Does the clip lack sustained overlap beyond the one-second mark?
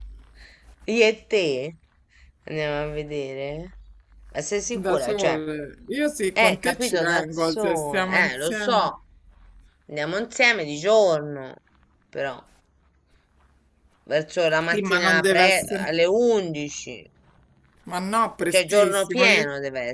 No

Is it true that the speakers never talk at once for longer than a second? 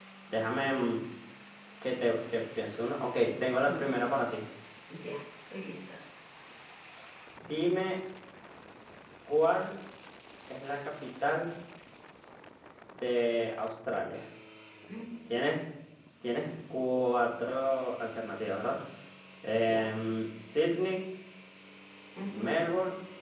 Yes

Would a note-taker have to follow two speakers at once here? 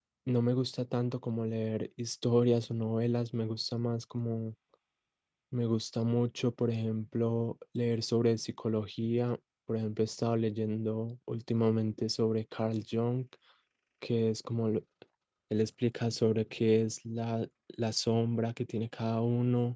No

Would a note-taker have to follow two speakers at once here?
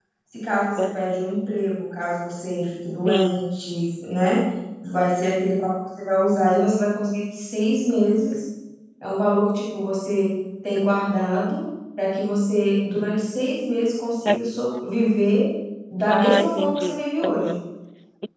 Yes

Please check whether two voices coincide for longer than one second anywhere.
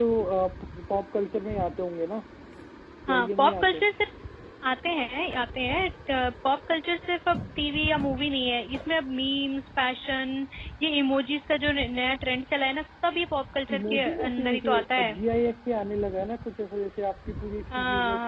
Yes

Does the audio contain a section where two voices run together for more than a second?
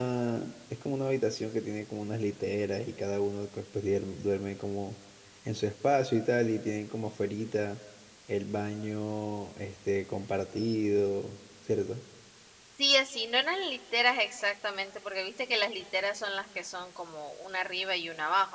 No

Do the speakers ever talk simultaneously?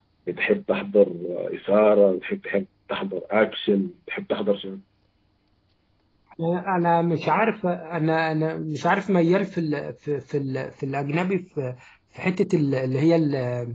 No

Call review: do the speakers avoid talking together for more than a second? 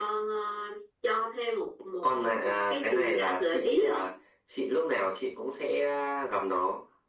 No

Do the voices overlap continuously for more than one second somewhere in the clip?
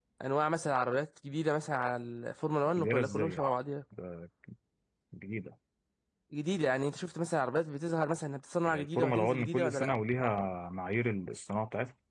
Yes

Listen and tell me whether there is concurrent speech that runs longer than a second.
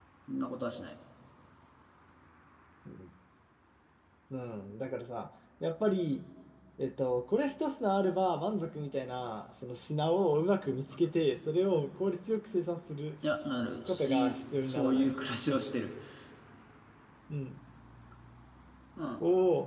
Yes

